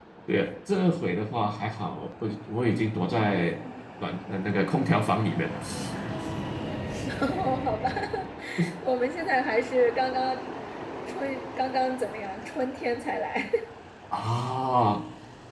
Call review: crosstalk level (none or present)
none